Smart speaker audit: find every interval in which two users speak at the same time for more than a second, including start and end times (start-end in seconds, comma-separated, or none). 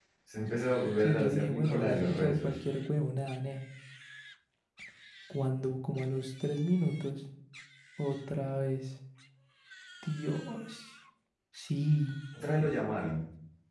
1.0-2.6